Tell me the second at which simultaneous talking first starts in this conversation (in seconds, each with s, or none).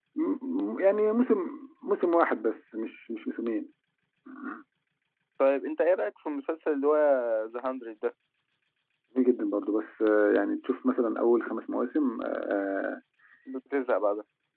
none